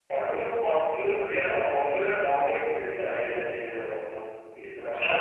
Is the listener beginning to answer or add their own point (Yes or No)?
Yes